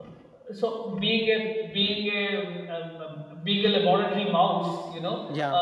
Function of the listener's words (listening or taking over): listening